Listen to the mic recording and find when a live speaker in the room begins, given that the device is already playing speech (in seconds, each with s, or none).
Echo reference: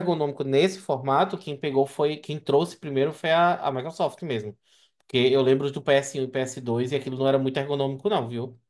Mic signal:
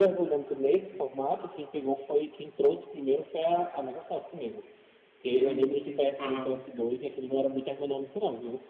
5.4 s